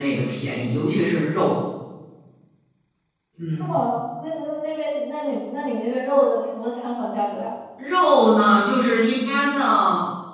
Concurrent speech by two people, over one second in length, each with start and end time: none

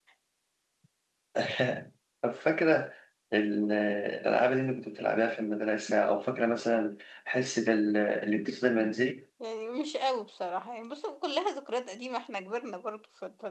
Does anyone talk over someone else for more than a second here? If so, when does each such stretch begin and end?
none

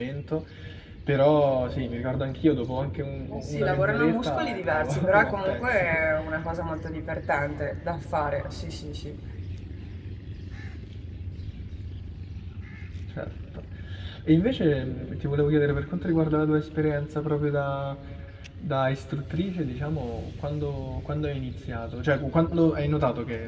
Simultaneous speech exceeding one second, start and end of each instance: 3.3-6.0

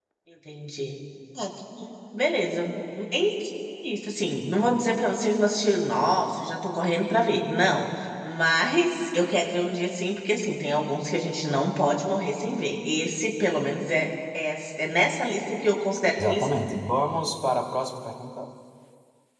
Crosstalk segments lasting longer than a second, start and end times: none

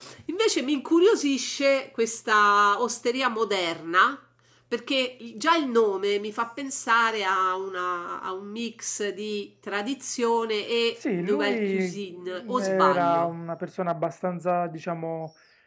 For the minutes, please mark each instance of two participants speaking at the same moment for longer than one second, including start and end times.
11.2-13.3

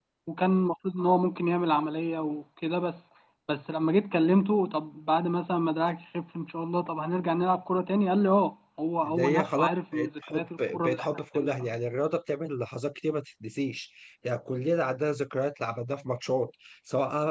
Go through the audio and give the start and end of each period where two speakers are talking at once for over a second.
9.0-11.5

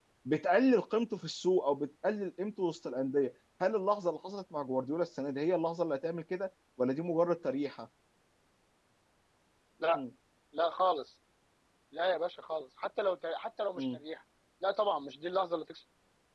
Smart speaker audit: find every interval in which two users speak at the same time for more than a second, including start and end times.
none

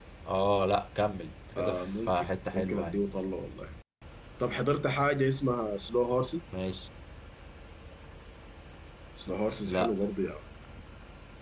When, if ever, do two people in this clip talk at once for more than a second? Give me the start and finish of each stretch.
1.6-3.0

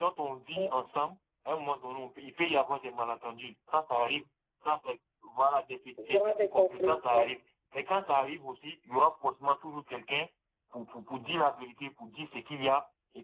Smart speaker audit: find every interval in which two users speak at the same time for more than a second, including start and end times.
6.1-7.3

